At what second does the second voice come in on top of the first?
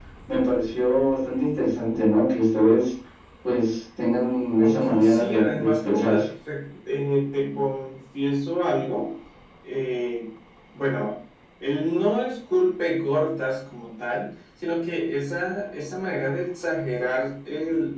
5 s

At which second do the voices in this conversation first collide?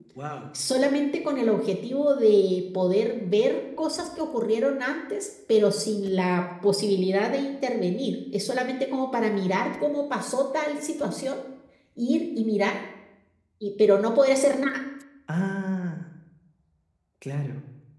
none

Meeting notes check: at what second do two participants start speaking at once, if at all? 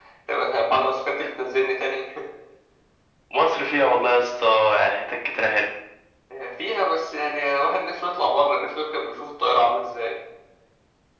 none

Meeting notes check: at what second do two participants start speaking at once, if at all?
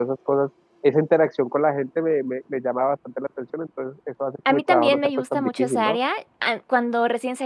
4 s

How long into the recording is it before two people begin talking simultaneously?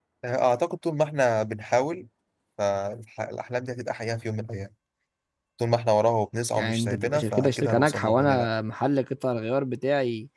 7 s

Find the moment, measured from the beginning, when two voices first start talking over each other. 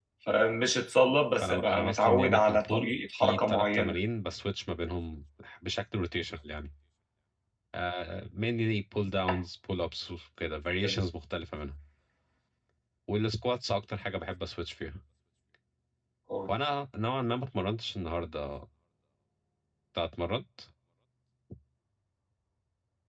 1 s

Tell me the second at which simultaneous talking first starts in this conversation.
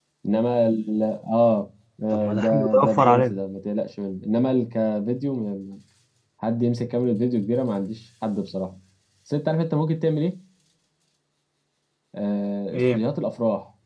2 s

